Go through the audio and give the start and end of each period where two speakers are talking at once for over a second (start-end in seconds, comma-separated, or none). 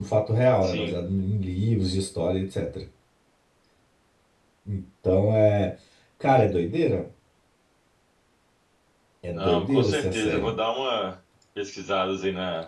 9.3-10.6